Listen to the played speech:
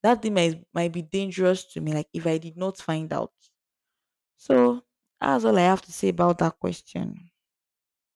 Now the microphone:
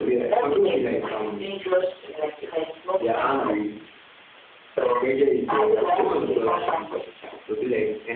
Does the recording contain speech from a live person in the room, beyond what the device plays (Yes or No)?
Yes